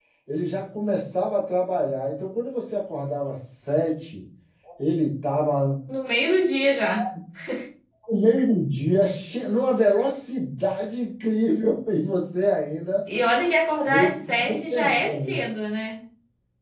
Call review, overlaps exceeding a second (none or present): present